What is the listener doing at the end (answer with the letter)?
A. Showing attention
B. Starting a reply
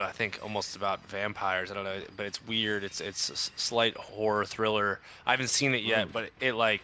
A